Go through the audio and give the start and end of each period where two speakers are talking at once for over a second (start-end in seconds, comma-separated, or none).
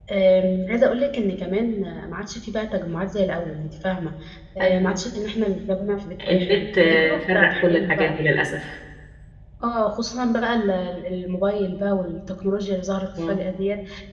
6.3-8.2